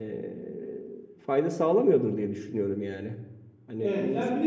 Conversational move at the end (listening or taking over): taking over